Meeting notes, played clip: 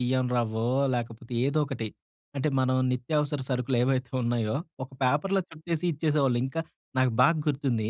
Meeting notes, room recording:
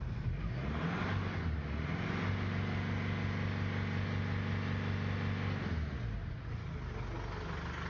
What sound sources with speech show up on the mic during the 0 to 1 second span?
neither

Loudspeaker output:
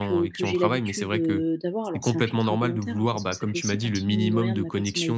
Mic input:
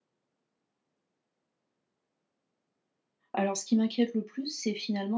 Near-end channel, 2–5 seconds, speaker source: user only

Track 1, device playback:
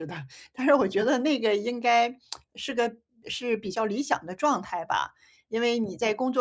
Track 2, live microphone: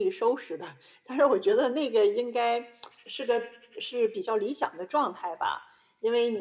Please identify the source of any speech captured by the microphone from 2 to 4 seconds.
echo only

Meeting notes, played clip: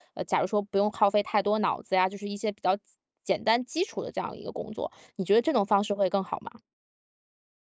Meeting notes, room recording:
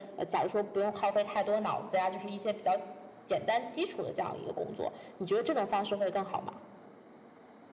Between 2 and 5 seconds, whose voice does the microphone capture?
echo only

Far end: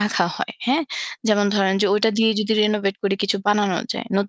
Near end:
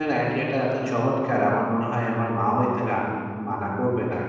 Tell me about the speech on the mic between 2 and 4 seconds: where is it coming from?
user only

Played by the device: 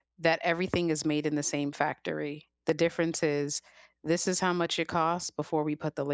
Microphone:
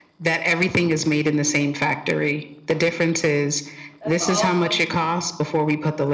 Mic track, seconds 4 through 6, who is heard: both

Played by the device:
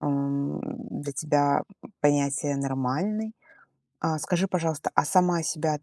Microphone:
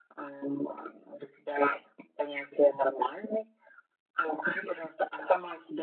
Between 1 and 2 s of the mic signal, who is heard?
echo only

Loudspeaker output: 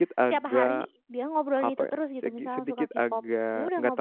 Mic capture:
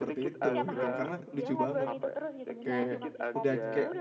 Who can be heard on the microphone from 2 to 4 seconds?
both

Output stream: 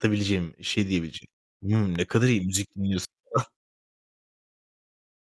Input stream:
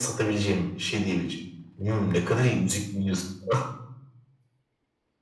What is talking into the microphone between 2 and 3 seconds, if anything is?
echo only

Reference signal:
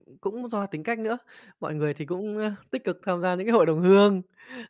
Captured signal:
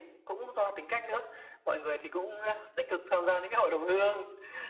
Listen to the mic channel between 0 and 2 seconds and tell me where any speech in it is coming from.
echo only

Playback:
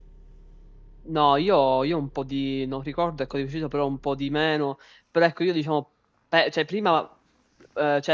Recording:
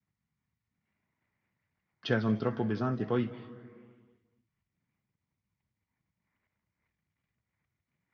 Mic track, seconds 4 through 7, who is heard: neither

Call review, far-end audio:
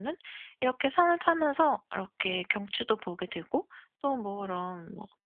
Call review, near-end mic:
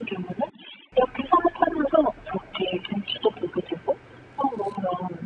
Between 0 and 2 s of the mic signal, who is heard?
echo only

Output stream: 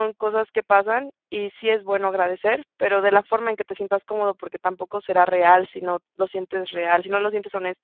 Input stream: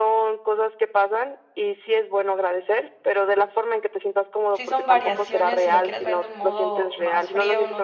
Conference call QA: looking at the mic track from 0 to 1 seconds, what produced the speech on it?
echo only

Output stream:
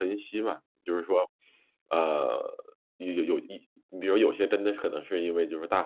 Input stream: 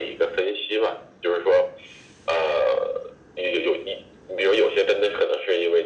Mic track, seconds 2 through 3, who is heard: echo only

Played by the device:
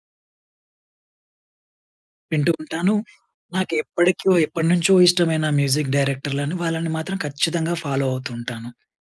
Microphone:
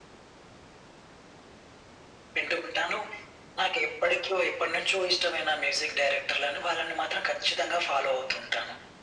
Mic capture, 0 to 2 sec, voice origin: neither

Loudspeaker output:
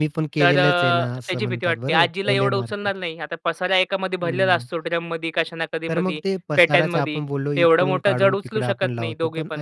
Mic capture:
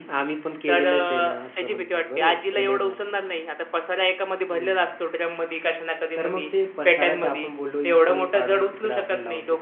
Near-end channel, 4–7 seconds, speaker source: echo only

